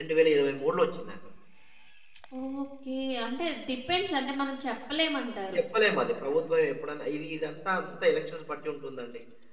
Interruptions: none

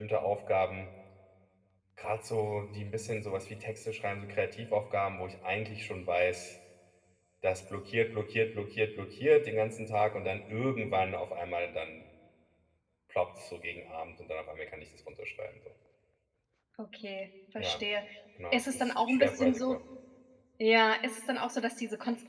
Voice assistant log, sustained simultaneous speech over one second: present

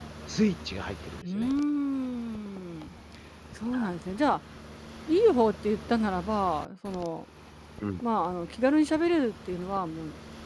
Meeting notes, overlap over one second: none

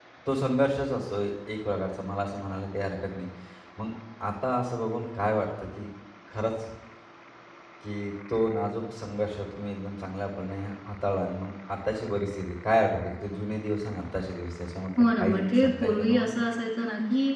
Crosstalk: present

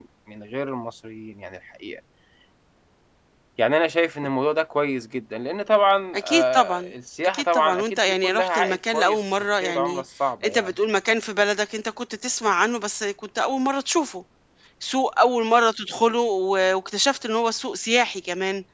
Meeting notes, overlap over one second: present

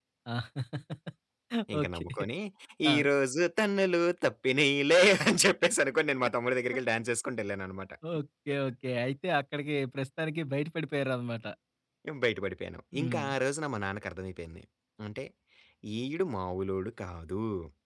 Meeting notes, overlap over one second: none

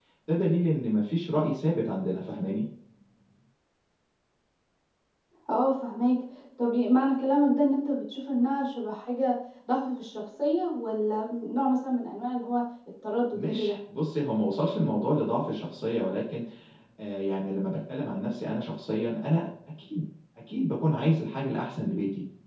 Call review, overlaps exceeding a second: none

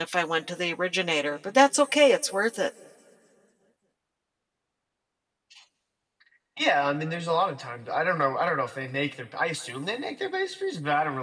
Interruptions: none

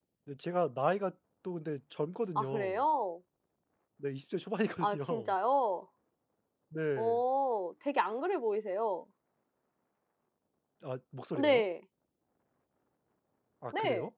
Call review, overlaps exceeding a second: none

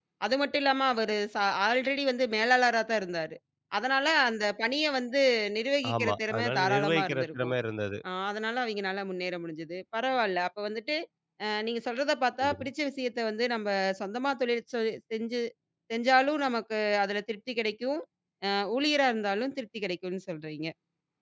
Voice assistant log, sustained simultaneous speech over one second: present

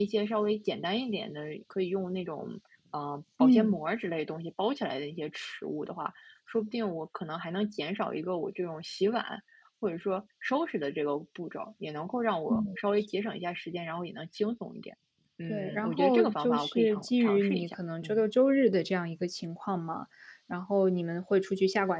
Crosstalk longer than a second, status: present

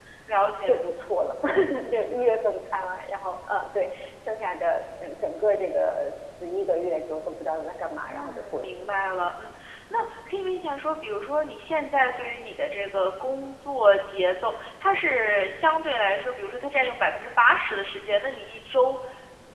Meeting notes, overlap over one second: present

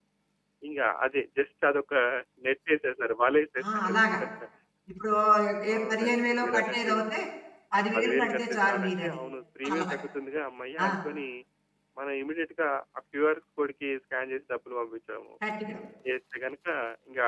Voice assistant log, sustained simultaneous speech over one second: present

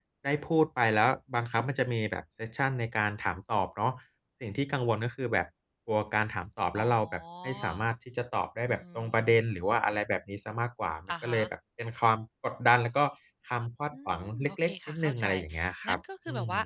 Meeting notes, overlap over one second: present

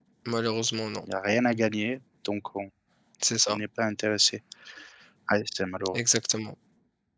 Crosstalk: none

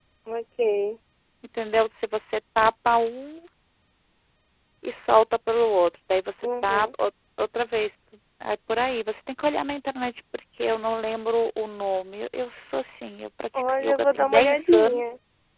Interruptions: present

